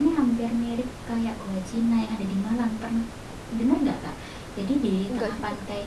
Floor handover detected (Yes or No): No